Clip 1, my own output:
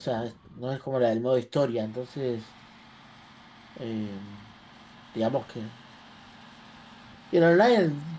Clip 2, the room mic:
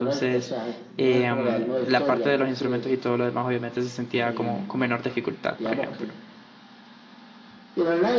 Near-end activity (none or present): present